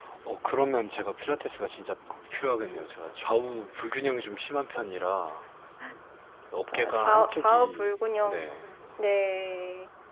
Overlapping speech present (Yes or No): Yes